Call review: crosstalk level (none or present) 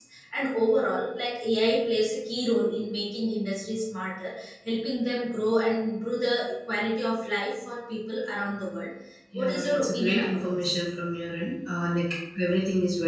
present